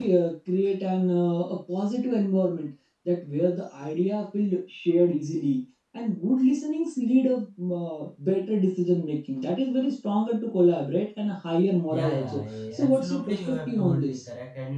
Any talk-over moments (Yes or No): Yes